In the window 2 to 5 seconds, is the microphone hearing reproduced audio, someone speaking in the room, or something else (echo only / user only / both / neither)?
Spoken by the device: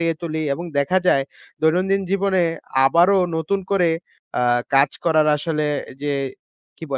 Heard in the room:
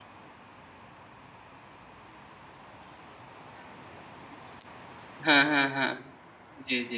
neither